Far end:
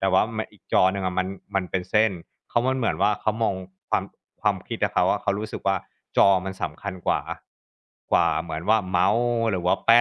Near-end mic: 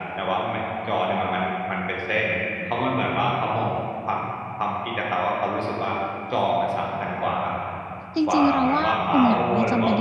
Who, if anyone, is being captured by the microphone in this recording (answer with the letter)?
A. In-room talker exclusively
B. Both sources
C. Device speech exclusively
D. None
B